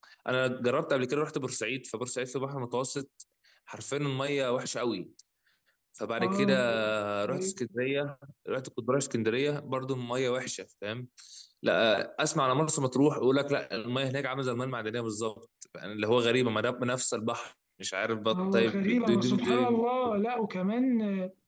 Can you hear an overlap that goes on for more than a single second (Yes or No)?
Yes